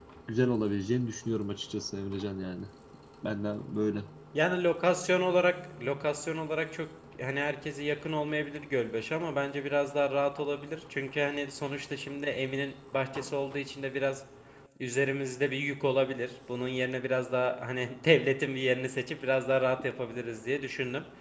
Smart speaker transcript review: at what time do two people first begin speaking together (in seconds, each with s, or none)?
none